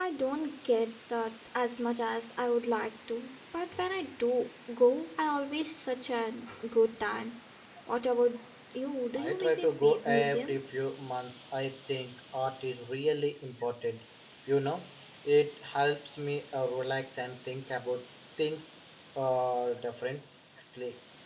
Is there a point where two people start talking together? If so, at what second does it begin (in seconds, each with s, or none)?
9.2 s